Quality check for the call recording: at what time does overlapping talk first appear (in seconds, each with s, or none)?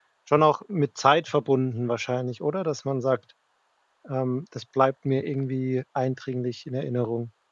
none